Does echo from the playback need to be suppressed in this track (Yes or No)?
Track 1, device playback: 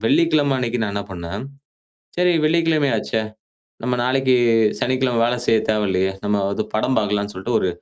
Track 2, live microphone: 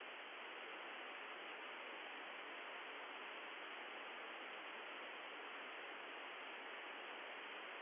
No